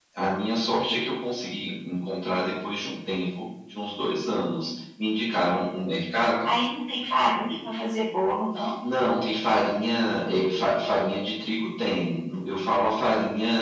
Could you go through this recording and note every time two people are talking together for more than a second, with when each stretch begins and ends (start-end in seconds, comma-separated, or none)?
none